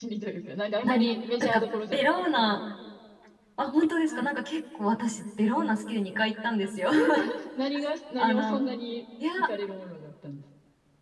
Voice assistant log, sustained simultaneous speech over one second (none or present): present